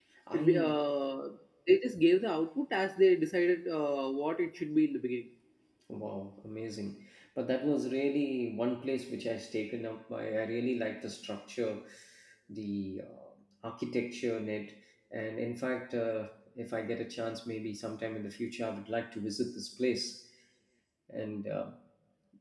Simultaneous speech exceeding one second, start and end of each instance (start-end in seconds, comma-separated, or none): none